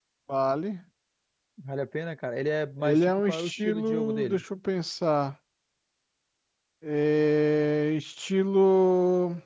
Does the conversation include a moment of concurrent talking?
Yes, from 2.8 s

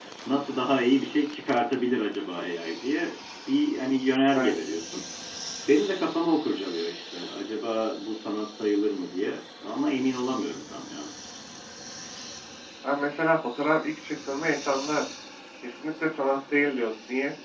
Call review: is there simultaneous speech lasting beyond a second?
No

